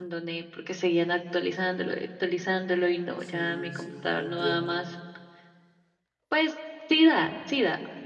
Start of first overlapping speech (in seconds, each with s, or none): 3.2 s